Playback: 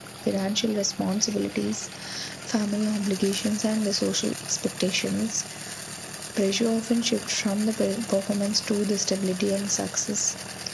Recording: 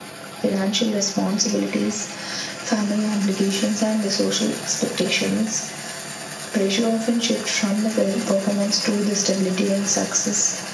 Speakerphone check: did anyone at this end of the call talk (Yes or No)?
No